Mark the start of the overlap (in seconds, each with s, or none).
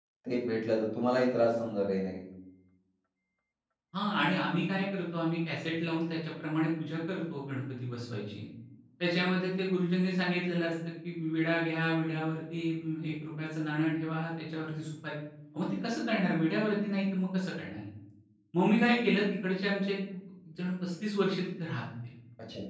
none